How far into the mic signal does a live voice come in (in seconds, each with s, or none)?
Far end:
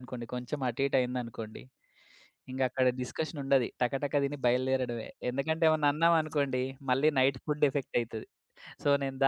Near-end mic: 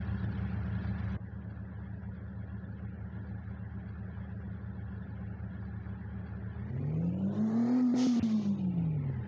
none